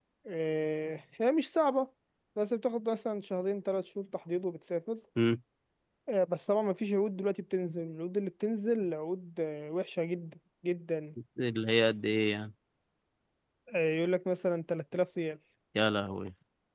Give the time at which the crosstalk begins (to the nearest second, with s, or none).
none